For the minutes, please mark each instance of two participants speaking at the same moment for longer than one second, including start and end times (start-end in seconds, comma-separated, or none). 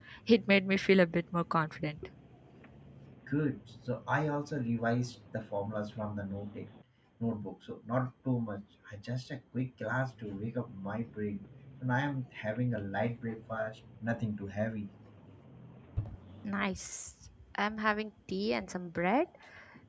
none